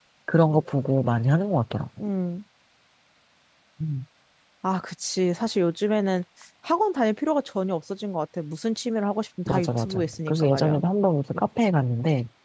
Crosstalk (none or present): present